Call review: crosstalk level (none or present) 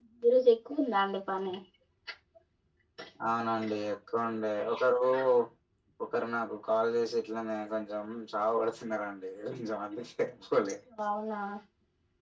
none